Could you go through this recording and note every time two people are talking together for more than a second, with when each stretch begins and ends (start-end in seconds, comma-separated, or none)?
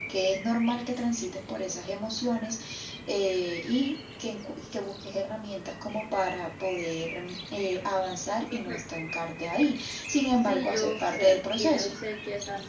10.4-12.0